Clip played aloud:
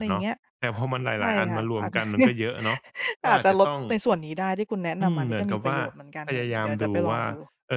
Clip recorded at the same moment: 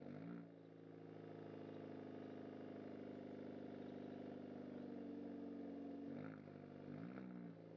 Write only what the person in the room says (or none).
none